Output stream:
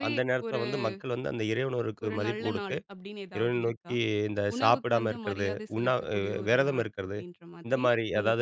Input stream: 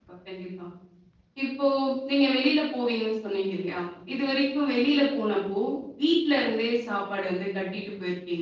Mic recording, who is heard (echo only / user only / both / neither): user only